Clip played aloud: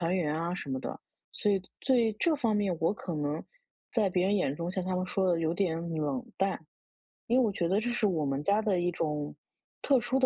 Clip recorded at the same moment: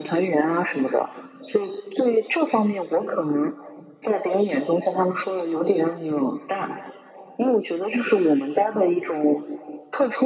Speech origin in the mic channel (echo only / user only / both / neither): echo only